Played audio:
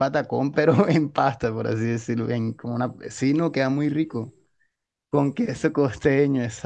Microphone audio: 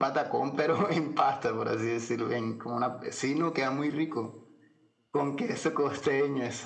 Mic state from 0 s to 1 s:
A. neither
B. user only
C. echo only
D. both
C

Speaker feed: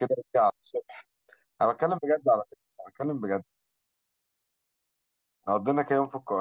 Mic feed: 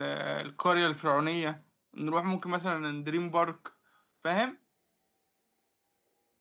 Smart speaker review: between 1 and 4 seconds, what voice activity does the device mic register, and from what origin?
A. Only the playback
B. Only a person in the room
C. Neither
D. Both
B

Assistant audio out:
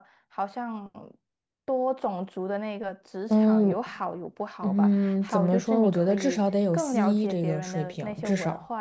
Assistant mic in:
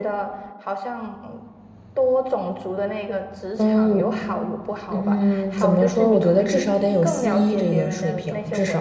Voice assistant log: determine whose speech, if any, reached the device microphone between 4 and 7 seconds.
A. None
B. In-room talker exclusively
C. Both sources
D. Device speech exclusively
D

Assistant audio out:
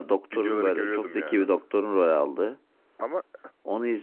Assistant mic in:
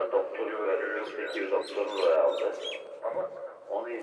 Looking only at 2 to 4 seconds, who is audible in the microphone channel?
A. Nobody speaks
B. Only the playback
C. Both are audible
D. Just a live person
B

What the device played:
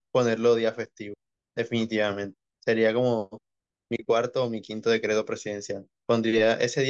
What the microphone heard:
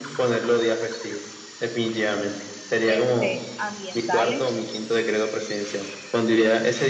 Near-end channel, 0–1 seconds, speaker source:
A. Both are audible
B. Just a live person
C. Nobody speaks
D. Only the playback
D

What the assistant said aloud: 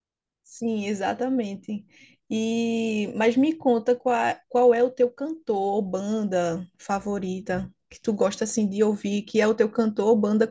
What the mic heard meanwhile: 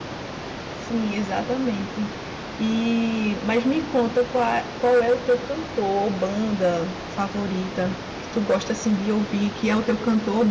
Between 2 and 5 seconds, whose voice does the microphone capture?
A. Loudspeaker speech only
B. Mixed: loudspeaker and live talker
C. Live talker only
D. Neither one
A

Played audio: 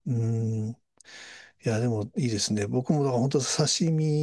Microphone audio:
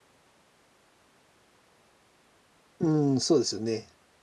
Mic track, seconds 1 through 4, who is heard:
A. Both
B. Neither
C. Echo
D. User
D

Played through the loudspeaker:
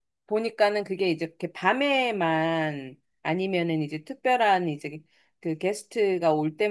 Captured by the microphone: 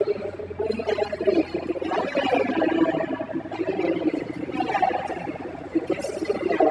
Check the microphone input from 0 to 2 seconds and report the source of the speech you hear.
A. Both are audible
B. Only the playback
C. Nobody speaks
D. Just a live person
B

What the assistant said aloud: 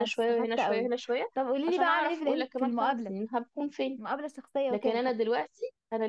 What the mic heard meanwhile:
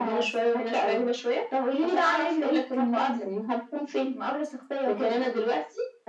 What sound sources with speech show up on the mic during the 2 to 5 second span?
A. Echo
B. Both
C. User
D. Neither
A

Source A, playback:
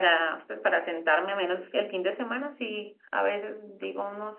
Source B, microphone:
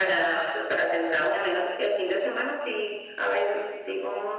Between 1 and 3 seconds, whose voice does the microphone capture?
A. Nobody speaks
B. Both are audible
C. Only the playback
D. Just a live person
C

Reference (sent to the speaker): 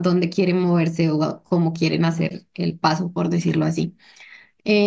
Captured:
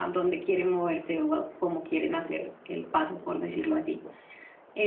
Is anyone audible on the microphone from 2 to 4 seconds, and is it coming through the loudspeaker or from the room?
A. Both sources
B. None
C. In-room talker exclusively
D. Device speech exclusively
D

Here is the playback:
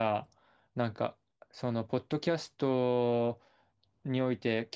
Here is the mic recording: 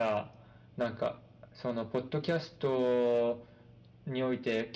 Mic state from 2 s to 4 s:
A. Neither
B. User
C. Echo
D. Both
C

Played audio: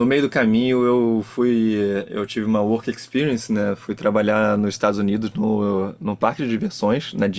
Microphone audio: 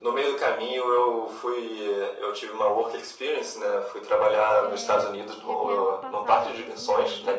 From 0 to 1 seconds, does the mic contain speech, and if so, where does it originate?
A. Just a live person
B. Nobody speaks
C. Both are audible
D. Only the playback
D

